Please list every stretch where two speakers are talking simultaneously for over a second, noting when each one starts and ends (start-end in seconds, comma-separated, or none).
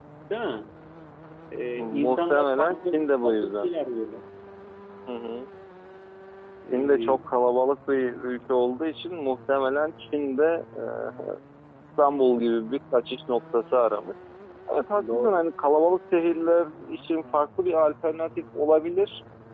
2.0-3.7